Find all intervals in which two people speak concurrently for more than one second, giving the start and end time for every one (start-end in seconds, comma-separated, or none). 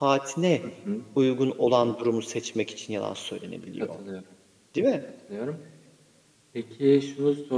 none